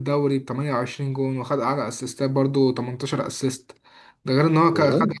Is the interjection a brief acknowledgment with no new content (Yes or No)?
Yes